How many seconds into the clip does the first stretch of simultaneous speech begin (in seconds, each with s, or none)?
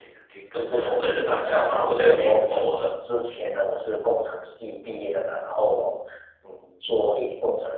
0.6 s